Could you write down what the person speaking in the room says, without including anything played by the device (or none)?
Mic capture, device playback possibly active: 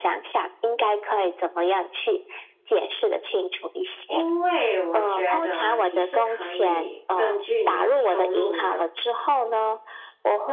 因为我觉得你是可以根据你的收入呢，